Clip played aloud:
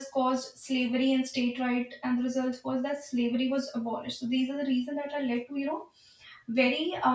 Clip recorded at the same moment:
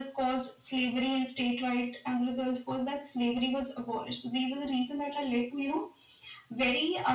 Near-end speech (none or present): none